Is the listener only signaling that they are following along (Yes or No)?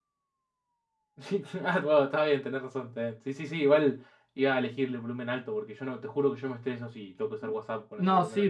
No